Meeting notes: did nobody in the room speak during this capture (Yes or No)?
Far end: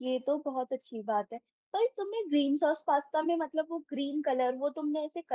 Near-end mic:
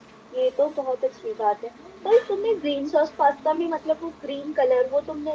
Yes